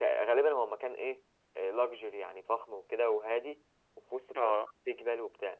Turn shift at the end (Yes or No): No